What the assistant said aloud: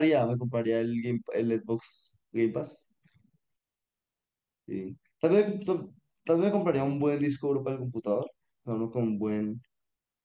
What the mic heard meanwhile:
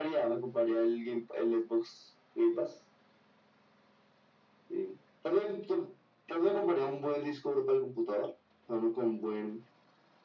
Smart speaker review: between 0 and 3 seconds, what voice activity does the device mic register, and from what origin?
echo only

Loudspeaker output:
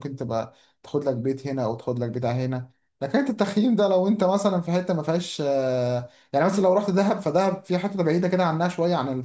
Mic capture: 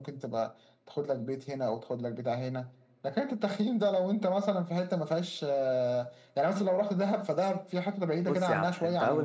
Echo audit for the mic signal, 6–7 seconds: echo only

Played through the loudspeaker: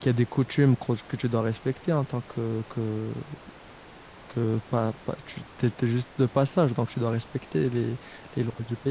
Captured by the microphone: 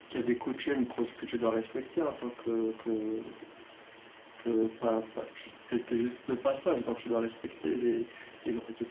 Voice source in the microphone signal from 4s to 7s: echo only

